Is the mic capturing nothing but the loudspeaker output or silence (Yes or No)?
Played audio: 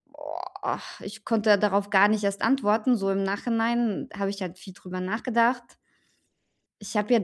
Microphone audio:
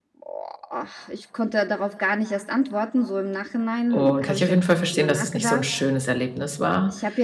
No